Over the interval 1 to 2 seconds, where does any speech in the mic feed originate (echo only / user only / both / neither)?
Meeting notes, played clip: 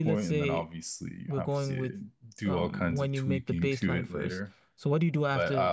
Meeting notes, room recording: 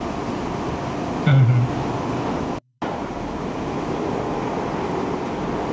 user only